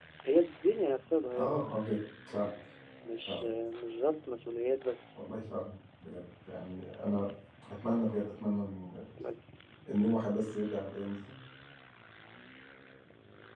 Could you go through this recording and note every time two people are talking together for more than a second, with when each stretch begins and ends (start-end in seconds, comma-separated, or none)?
none